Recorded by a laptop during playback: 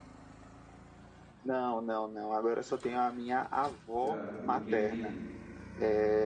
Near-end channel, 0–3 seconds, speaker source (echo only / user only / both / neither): echo only